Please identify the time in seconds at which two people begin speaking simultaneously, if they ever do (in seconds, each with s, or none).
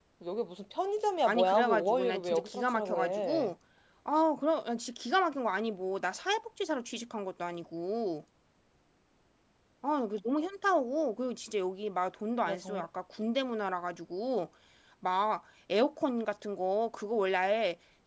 1.2 s